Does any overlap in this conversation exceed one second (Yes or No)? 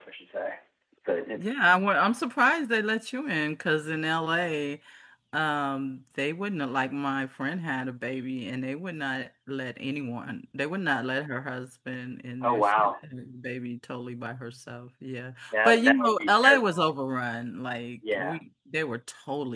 Yes